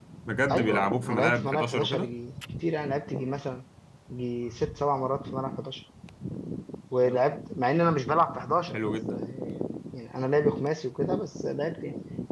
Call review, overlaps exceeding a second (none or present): present